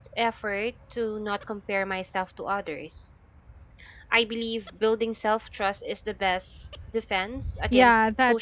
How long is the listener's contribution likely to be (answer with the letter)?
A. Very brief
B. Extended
B